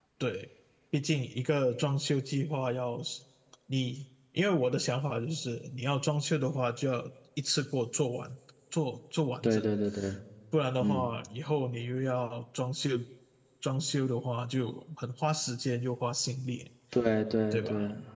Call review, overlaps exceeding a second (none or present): none